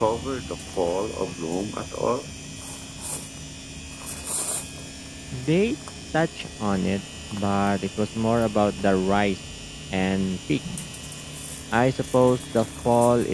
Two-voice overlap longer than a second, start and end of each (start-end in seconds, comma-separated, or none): none